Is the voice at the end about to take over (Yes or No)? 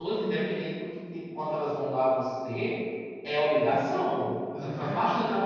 No